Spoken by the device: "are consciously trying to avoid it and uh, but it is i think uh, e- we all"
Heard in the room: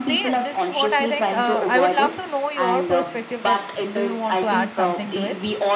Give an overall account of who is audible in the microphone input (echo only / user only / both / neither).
both